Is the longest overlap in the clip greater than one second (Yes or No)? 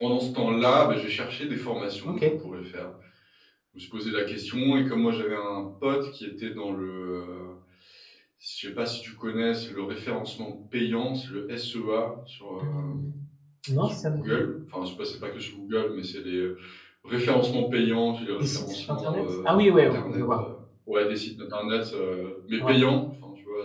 Yes